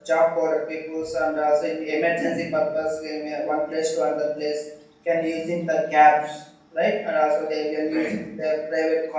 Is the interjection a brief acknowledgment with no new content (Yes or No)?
Yes